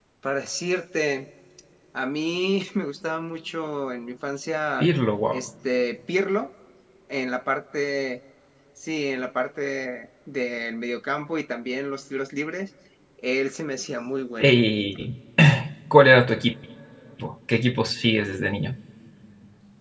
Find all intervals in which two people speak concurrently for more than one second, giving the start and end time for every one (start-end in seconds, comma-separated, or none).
none